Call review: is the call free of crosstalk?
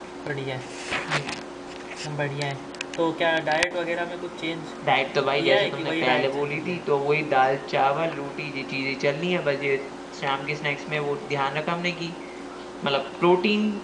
No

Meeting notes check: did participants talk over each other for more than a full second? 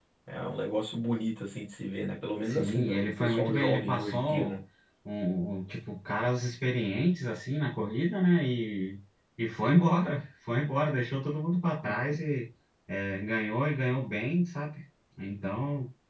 Yes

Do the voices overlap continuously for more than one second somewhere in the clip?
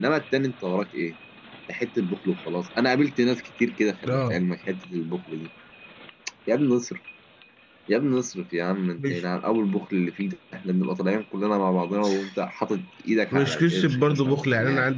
Yes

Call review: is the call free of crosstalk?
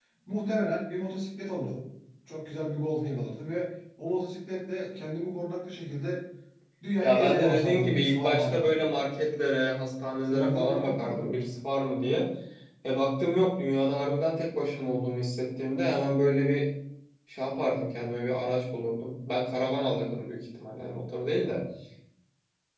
No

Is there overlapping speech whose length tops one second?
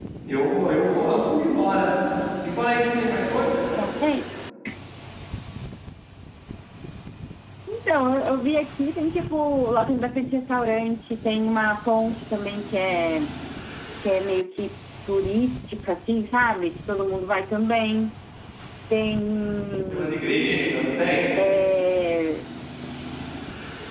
No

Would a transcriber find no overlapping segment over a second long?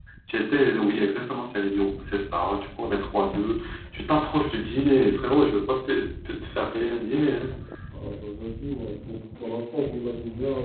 Yes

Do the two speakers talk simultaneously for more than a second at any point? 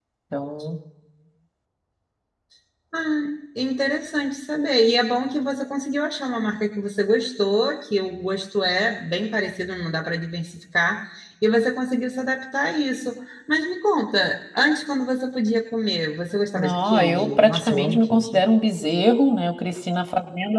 Yes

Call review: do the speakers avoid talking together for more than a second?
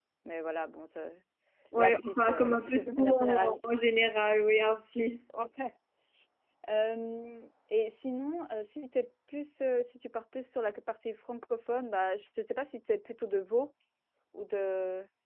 No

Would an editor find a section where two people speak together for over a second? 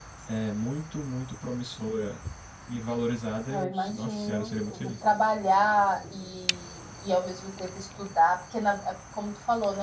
Yes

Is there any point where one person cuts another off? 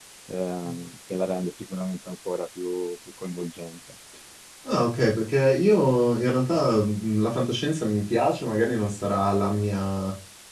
No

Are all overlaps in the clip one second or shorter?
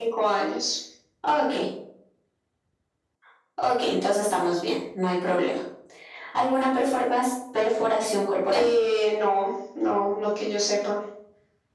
Yes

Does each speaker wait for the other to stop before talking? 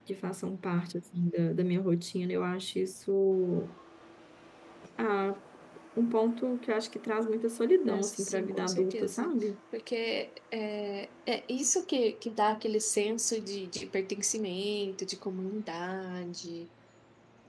No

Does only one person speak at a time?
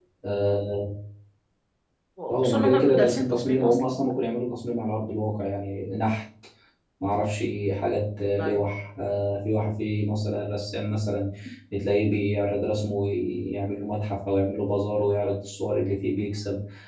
No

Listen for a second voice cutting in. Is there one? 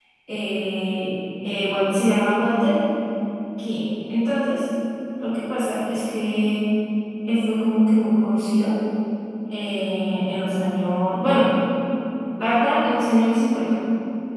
No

